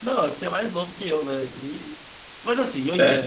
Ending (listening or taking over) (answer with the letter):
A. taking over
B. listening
B